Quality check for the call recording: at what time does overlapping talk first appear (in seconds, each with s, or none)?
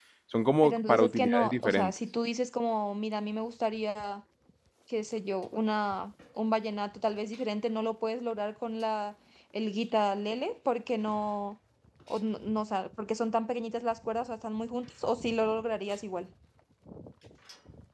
0.6 s